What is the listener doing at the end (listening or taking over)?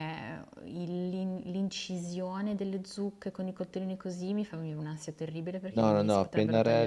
taking over